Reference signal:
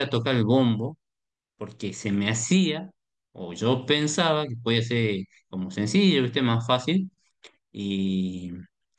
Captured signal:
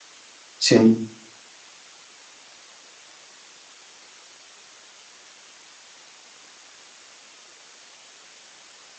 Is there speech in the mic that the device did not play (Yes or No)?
Yes